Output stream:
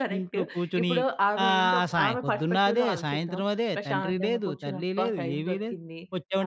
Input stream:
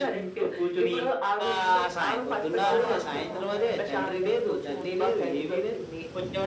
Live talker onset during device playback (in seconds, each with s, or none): 2.6 s